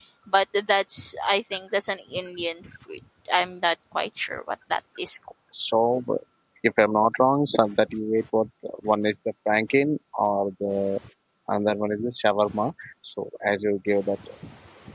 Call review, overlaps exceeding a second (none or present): none